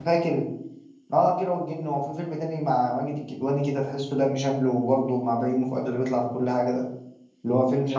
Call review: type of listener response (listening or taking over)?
listening